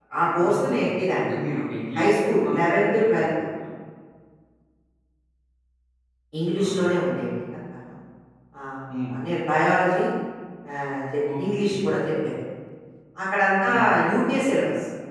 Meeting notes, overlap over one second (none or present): present